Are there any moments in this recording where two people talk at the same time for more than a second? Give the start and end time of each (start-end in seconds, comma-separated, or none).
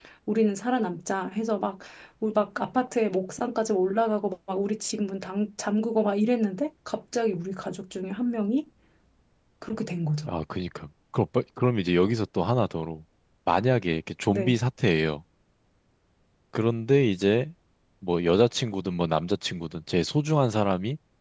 none